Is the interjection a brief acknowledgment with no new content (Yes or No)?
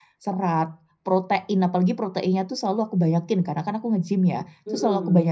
Yes